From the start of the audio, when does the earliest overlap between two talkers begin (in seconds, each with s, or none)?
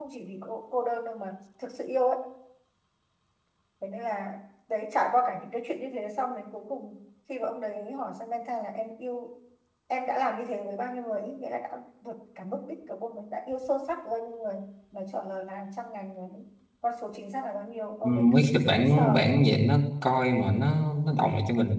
18.0 s